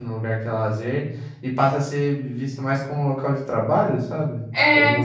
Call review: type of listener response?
taking over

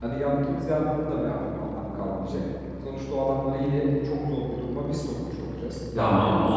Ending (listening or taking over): taking over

